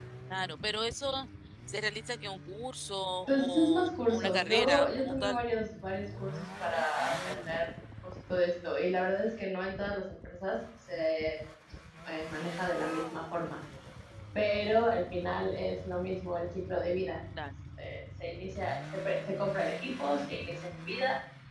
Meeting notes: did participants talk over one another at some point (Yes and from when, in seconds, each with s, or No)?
Yes, from 3.3 s